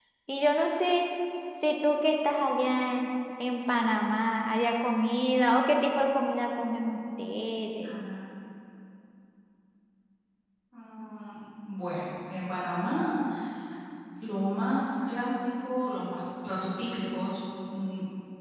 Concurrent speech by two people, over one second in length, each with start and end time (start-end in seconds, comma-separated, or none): none